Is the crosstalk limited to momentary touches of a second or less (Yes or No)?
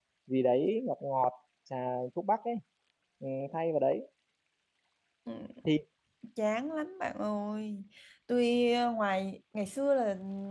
Yes